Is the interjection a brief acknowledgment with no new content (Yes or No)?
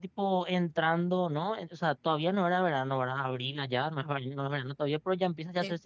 Yes